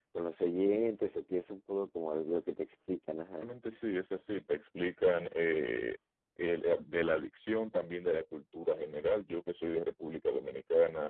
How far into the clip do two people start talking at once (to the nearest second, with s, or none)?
none